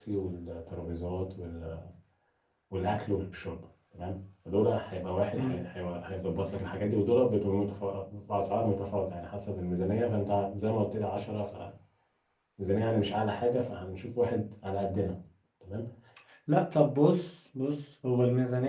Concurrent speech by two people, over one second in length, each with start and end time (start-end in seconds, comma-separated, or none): none